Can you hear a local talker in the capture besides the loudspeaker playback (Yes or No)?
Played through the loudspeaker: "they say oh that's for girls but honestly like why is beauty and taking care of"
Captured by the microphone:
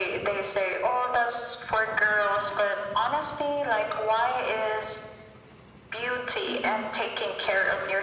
Yes